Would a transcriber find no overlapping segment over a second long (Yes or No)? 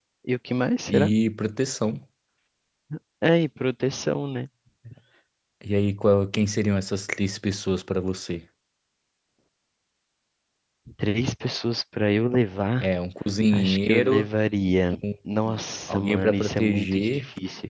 No